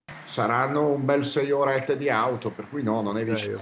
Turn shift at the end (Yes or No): Yes